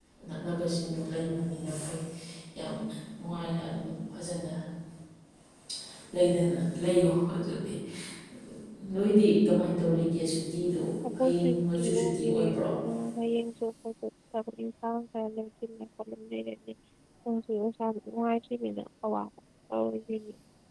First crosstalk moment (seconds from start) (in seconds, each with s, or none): 11.2 s